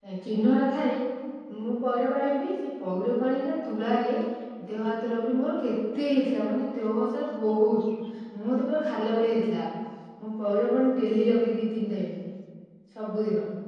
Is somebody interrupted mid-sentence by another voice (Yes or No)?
No